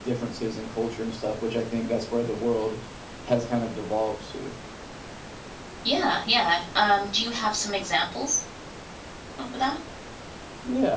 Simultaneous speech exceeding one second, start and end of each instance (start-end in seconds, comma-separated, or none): none